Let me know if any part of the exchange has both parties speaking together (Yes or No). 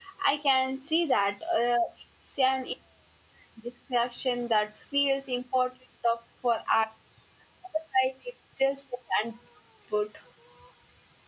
No